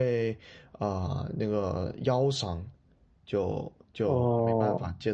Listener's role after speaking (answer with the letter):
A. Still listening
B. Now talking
A